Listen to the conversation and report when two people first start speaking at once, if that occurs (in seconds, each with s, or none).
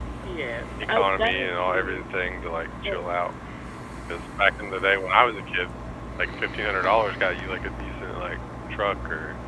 0.8 s